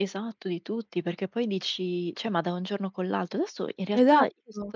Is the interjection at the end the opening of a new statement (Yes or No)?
No